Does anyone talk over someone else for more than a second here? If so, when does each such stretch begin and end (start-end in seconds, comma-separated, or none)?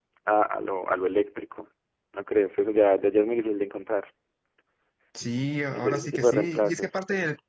5.8-7.0